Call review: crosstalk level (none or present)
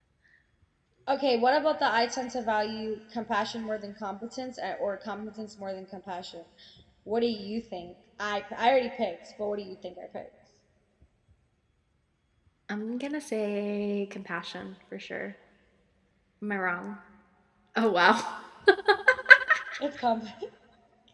none